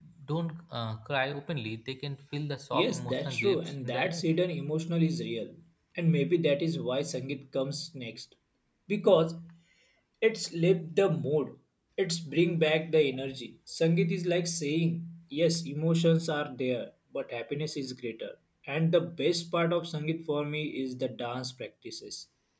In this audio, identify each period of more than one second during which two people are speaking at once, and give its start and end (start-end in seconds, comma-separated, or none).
2.7-4.2